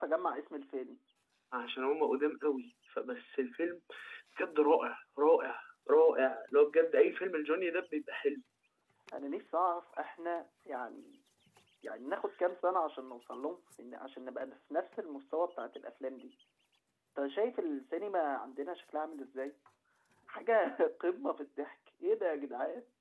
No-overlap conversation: Yes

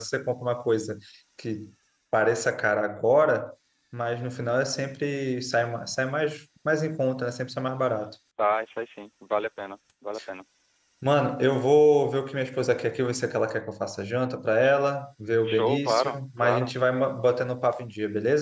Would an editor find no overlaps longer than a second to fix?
No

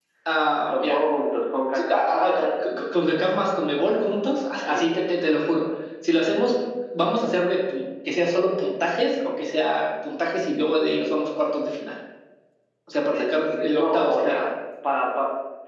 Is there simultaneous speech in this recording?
Yes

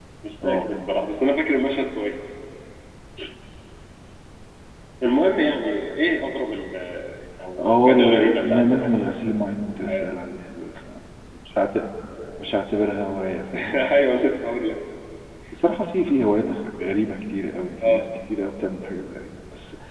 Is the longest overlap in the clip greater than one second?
Yes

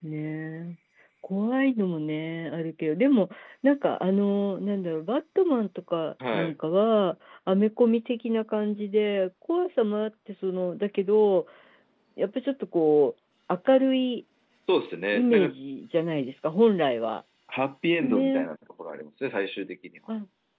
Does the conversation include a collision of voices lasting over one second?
No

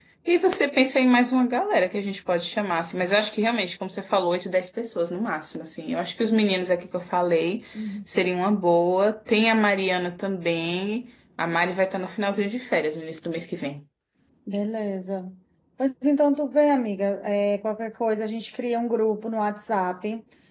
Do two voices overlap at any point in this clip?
No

